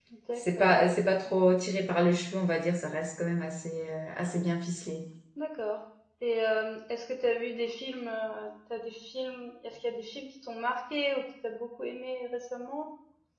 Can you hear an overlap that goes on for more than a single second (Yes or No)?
No